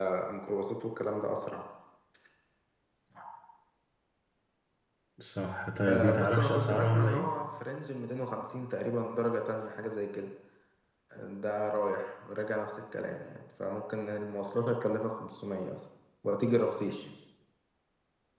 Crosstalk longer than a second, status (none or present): present